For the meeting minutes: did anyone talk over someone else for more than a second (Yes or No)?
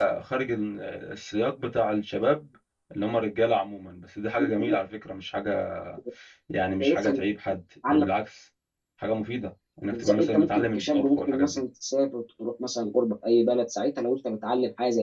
Yes